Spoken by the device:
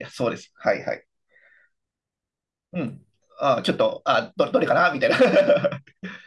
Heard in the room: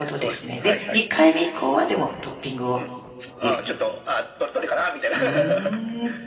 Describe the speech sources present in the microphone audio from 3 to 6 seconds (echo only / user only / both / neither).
both